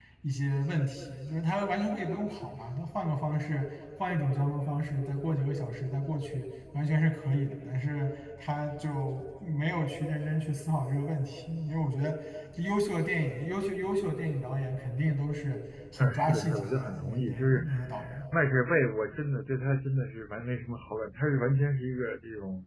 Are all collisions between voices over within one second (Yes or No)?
No